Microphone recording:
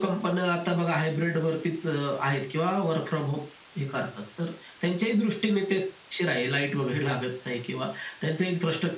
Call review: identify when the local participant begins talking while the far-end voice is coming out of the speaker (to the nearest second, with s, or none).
none